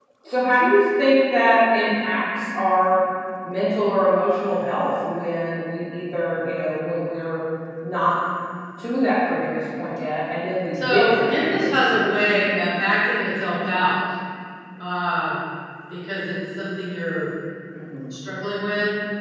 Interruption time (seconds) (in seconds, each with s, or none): 10.7 s